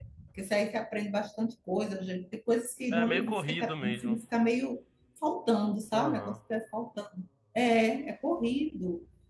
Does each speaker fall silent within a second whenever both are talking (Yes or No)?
No